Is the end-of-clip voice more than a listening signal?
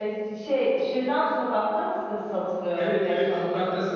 Yes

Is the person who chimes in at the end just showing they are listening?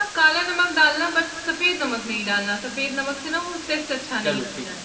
No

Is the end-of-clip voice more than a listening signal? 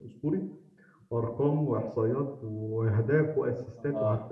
Yes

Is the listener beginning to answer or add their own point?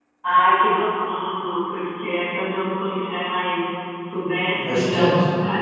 No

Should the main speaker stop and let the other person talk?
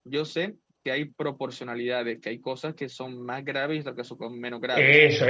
Yes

